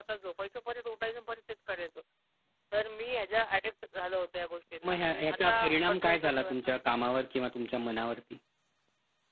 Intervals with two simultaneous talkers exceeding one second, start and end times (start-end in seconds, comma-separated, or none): 4.8-6.7